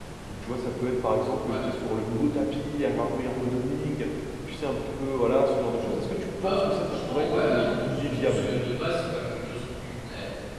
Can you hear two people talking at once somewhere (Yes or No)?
Yes